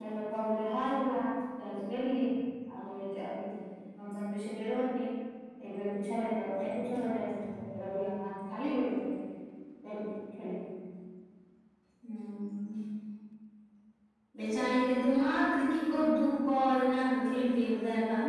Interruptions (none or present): none